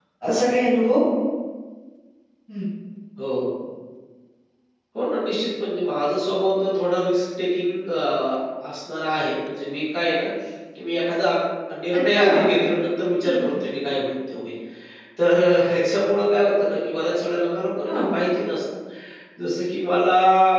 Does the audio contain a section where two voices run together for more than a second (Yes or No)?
No